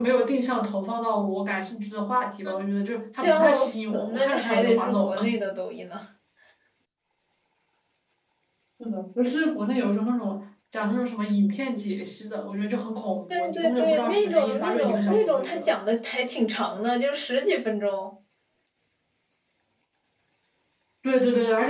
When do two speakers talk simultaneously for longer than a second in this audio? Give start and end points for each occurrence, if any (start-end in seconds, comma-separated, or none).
3.2-5.2, 13.3-15.7